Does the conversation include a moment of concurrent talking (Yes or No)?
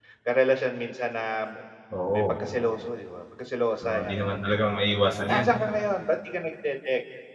Yes